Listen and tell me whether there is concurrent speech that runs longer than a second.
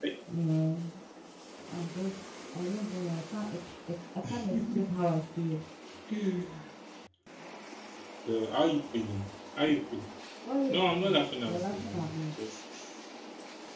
Yes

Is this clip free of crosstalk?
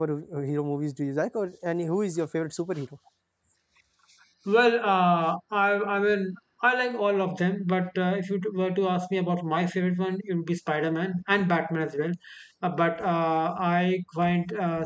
Yes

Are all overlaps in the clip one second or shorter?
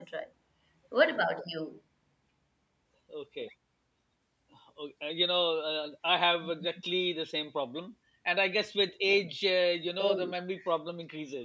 Yes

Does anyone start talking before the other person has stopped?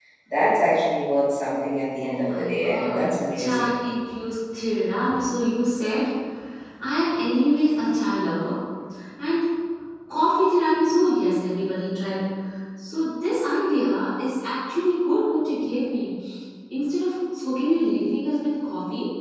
Yes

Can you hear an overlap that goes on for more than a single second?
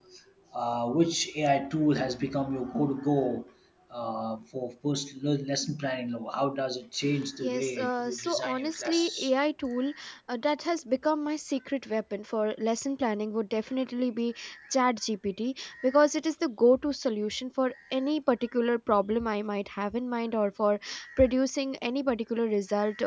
Yes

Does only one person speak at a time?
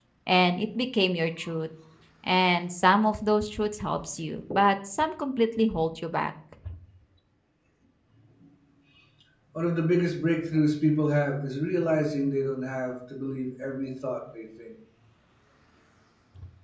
Yes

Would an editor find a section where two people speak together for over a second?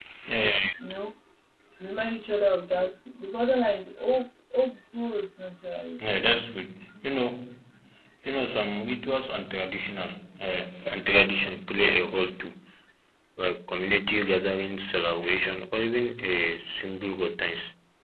No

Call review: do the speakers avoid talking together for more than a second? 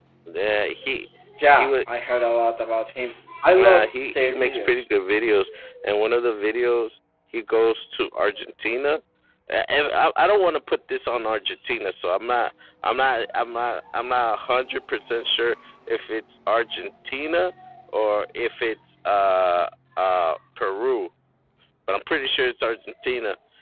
No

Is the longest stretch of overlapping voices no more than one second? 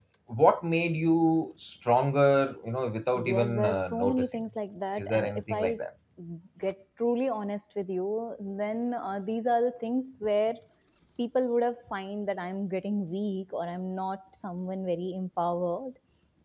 No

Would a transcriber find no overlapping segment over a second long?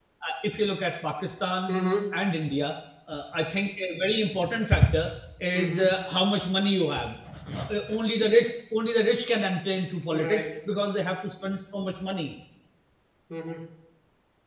Yes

